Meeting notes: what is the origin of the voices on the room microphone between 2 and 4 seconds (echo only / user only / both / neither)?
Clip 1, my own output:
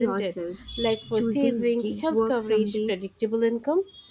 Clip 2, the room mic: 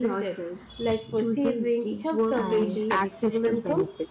both